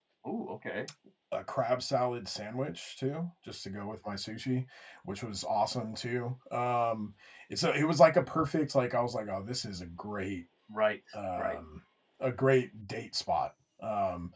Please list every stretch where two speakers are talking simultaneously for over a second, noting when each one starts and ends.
none

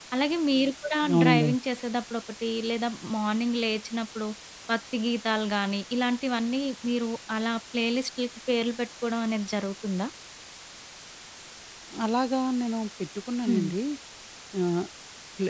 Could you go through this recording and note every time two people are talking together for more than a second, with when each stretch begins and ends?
none

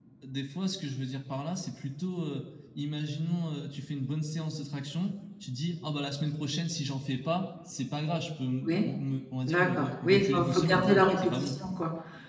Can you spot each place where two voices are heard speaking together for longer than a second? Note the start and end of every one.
9.5-11.5

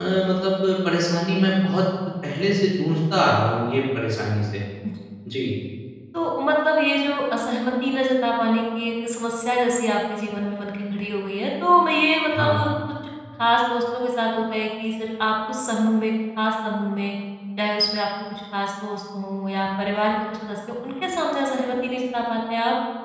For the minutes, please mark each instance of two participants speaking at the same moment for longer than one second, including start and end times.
none

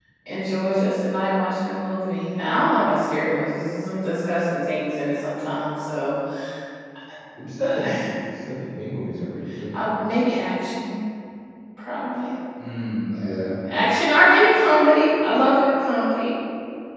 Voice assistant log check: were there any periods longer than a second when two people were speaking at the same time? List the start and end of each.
none

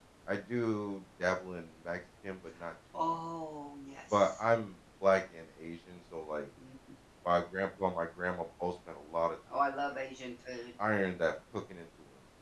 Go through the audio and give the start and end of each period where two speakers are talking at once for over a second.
none

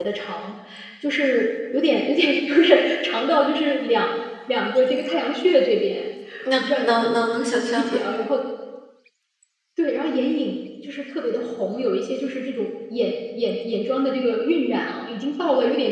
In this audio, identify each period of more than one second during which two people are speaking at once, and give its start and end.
6.6-8.0

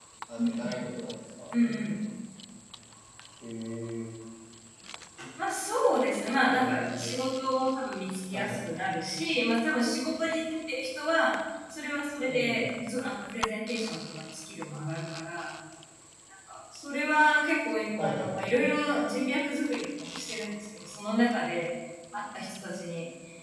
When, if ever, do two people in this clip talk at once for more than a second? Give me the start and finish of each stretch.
none

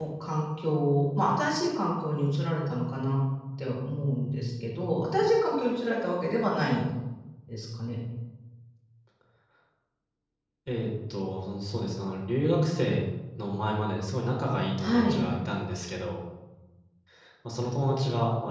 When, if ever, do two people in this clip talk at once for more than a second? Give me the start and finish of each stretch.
none

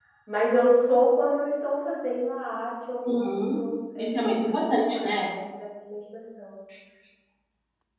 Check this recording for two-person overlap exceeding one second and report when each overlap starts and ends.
4.0-5.3

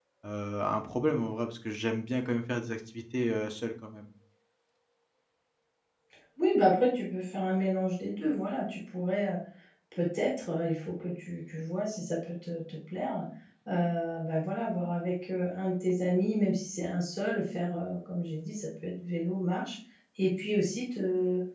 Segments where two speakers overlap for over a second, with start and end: none

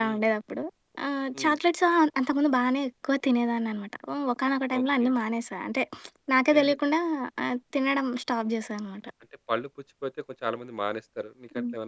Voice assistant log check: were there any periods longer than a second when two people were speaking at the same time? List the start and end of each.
none

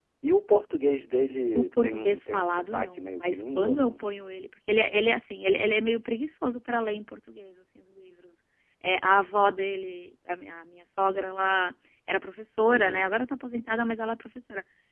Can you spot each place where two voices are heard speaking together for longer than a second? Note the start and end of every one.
1.6-3.9

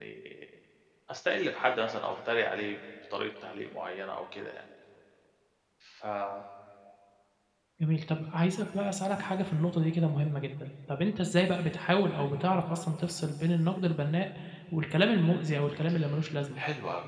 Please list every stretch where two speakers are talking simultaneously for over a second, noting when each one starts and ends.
none

